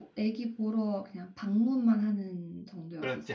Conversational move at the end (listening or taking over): taking over